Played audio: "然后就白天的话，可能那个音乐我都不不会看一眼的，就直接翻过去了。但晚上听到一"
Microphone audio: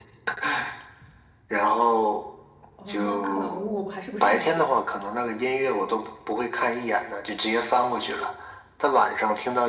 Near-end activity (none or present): present